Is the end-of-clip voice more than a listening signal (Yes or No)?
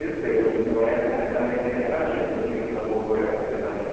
Yes